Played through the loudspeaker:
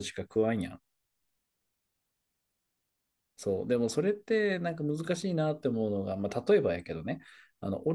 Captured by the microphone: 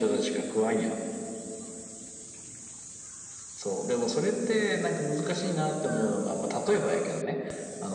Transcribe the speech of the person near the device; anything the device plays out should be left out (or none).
none